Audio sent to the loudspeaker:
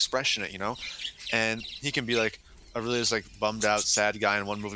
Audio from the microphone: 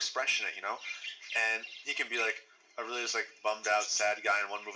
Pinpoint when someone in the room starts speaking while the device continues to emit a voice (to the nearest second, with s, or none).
none